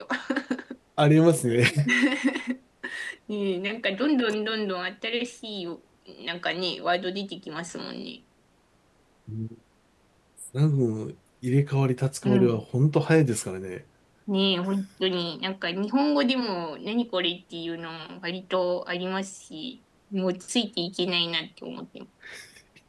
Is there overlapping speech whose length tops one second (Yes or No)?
No